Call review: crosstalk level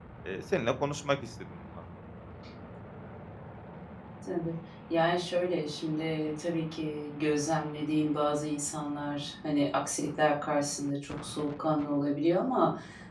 none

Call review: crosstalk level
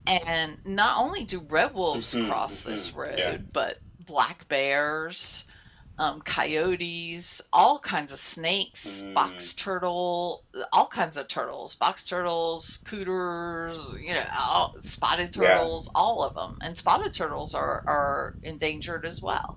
present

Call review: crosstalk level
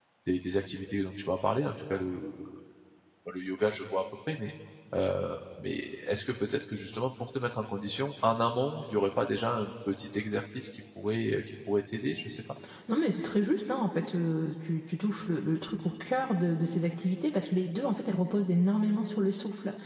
none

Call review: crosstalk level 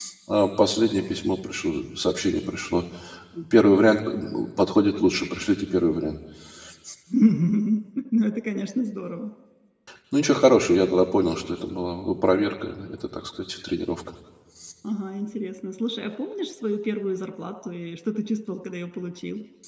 none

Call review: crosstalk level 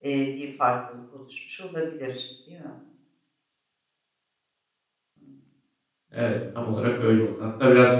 none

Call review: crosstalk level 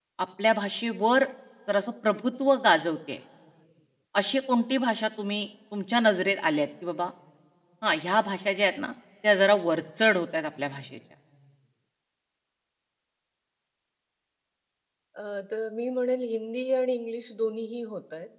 none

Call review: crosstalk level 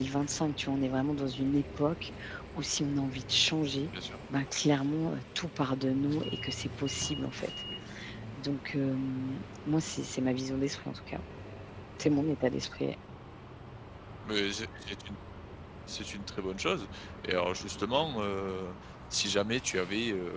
none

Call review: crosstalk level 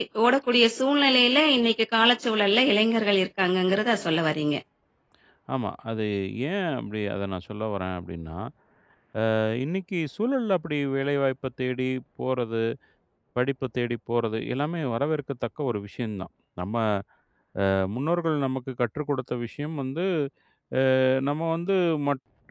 none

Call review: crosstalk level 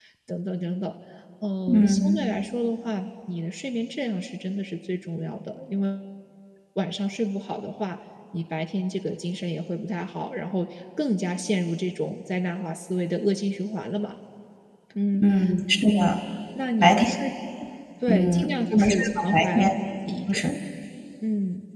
present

